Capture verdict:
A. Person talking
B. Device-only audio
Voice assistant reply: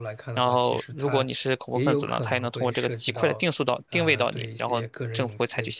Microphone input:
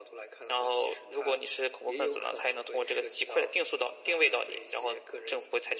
B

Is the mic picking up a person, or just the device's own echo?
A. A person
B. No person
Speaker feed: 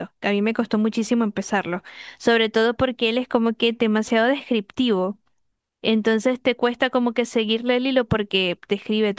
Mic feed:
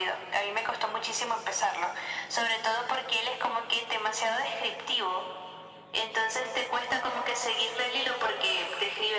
B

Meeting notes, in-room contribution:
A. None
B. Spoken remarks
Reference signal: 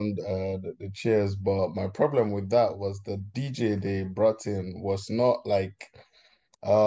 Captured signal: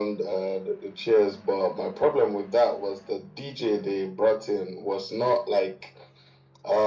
A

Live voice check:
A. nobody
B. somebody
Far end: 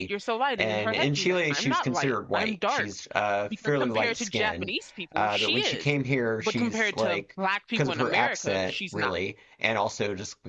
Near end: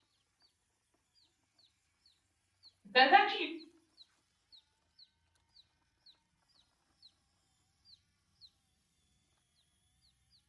B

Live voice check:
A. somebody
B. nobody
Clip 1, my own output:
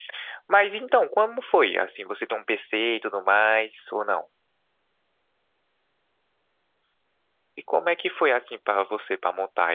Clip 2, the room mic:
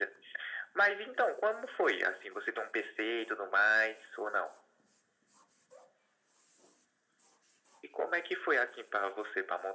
B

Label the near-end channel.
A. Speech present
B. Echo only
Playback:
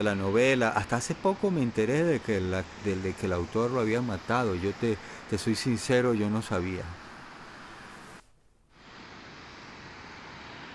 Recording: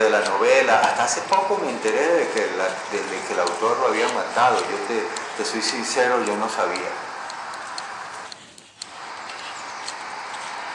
B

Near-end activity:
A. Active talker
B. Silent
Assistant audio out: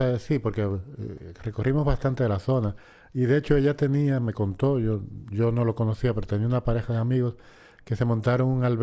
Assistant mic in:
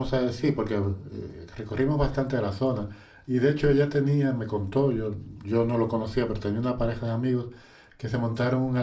B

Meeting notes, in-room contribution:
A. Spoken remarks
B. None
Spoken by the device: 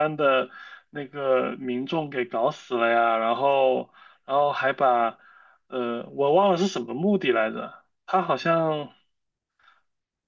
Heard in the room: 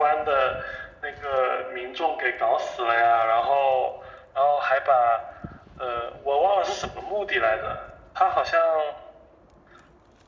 B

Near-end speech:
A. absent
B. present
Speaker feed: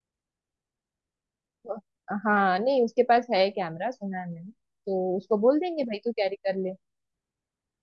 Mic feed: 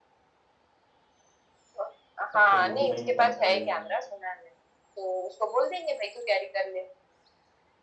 B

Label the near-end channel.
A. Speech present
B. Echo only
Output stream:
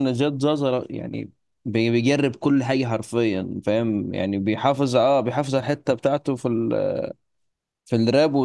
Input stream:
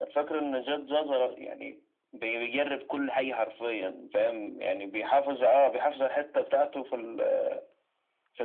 B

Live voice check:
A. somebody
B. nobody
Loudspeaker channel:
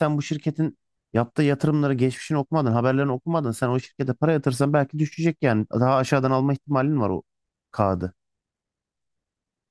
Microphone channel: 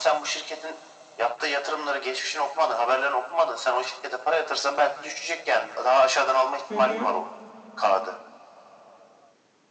A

